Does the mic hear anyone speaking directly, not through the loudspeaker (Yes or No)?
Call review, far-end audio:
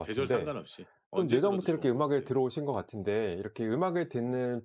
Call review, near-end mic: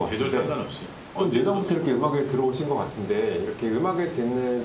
No